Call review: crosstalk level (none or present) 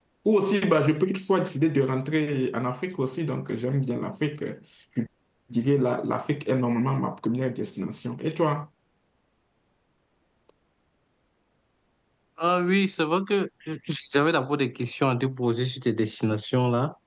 none